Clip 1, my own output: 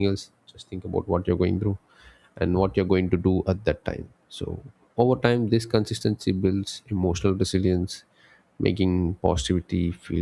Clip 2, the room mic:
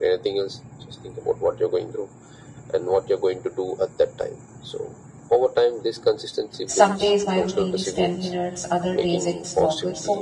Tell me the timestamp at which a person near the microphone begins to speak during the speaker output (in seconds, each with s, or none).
6.6 s